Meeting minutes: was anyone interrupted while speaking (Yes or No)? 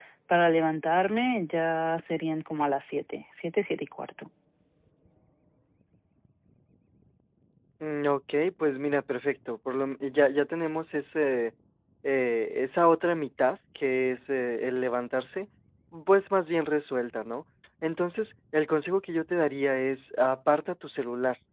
No